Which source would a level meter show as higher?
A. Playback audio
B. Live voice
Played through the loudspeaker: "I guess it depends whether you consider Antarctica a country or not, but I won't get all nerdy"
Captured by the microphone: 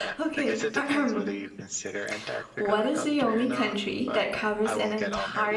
B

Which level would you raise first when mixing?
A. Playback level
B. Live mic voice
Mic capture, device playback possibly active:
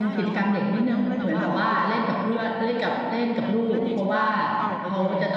A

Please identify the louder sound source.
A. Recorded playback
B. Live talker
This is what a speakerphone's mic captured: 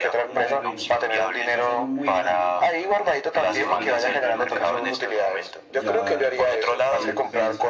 A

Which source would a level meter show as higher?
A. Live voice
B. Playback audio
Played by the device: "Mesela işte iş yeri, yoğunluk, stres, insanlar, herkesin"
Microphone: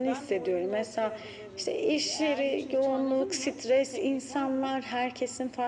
B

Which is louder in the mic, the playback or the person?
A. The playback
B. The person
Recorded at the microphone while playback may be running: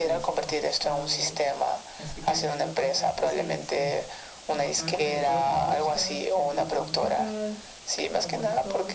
A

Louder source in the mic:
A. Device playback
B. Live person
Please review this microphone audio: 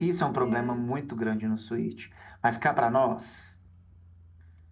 A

